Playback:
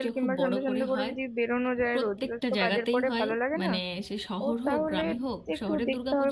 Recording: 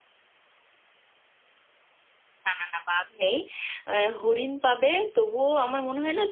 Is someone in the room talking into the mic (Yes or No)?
Yes